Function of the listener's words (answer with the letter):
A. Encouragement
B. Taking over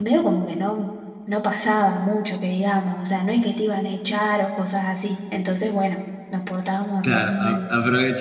B